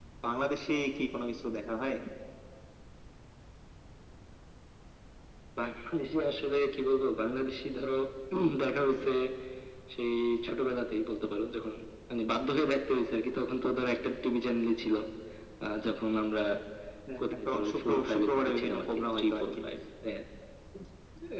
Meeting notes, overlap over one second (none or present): present